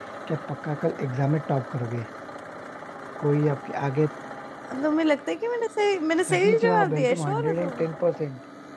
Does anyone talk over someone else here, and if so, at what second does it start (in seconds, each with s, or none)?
6.3 s